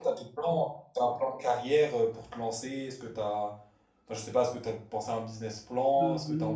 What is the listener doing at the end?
taking over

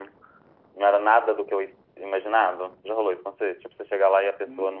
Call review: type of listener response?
taking over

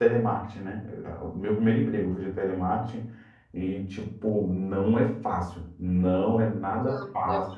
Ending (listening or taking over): listening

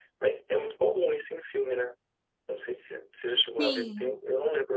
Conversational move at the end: listening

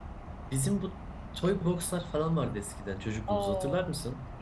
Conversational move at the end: taking over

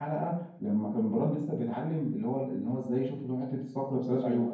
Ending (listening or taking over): listening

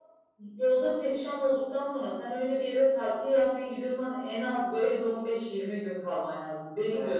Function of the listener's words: taking over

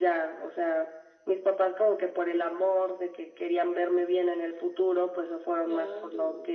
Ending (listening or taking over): listening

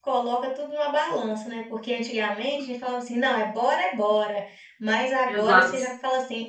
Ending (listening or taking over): listening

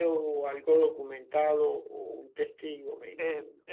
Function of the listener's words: taking over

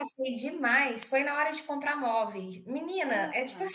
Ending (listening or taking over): listening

